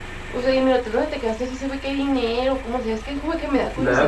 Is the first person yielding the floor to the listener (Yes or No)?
Yes